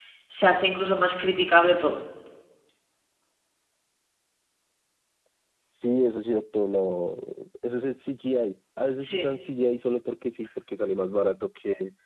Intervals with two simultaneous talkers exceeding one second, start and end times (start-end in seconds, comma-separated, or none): none